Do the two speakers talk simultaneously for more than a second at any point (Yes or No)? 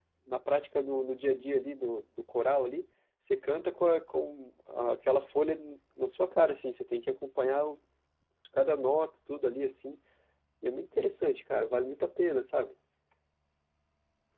No